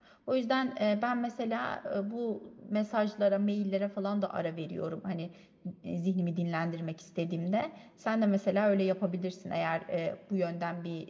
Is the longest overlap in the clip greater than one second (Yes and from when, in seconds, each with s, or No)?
No